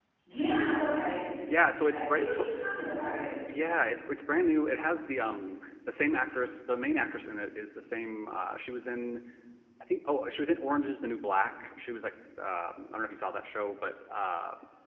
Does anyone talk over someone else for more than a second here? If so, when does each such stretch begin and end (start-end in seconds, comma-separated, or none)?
none